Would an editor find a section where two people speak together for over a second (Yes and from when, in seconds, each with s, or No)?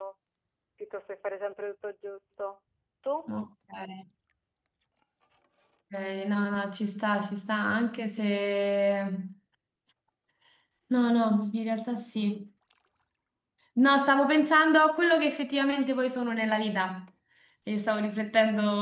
No